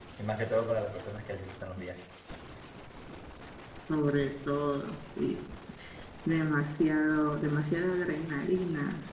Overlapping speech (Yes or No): No